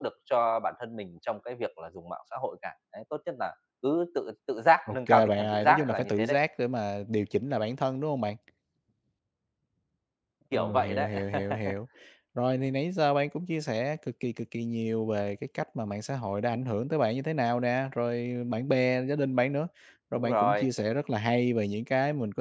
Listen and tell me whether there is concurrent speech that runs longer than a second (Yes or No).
Yes